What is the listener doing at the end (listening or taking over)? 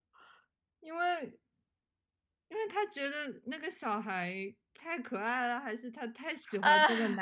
listening